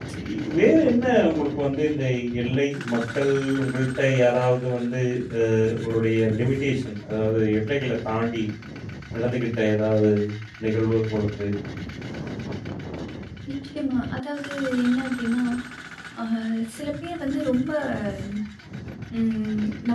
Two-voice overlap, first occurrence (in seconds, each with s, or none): none